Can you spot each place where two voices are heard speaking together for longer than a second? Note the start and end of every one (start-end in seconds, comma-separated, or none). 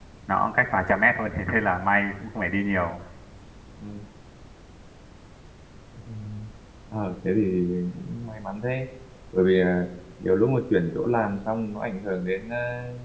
none